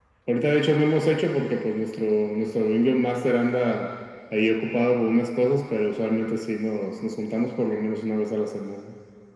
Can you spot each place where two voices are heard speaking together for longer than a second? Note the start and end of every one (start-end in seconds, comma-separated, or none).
none